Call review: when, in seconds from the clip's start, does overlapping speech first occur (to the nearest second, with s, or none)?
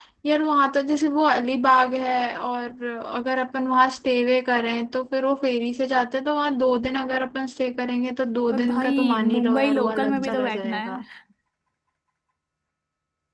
8 s